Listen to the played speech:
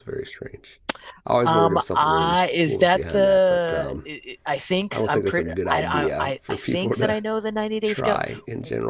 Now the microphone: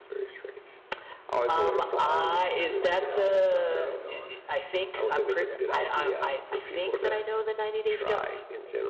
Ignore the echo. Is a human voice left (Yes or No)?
Yes